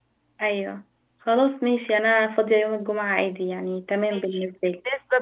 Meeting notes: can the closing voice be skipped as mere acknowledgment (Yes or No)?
No